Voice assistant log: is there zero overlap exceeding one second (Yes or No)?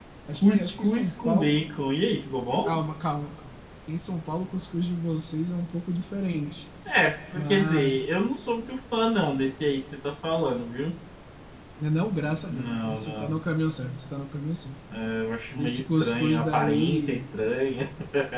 No